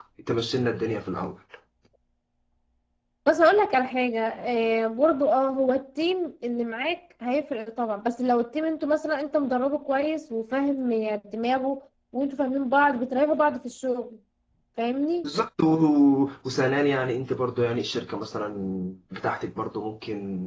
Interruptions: none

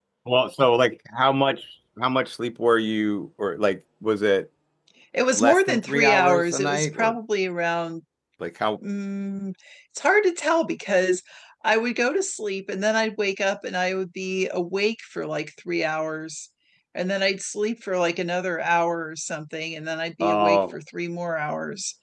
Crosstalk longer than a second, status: present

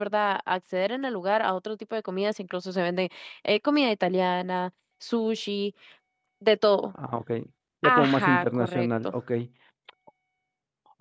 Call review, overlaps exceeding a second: present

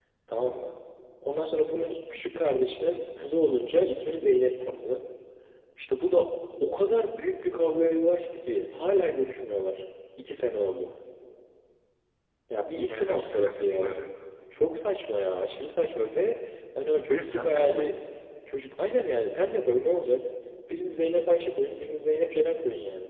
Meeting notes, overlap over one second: present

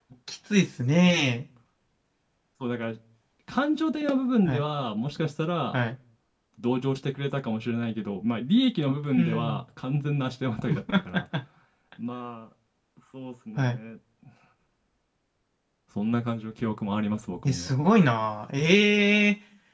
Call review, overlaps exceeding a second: none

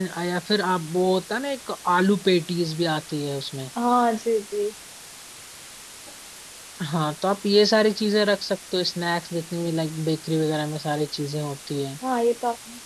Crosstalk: none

